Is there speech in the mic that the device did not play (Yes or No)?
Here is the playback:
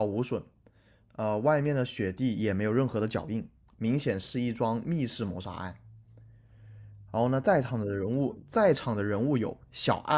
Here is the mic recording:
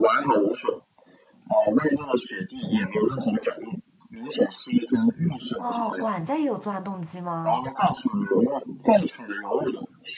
Yes